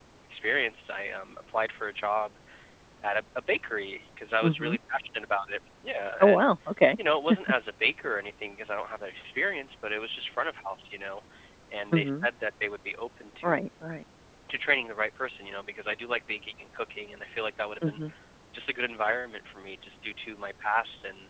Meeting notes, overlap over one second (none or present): none